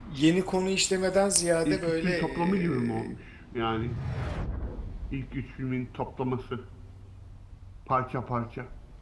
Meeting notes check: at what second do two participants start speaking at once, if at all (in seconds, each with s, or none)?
1.6 s